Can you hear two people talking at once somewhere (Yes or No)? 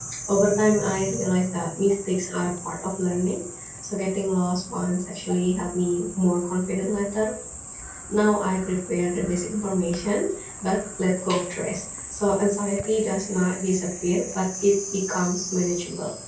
No